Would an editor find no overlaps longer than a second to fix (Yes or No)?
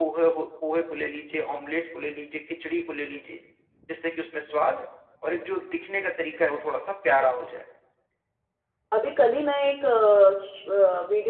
Yes